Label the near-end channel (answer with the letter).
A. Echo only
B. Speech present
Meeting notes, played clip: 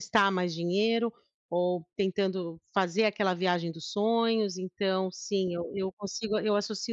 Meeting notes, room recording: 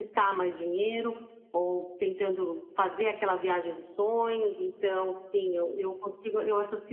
A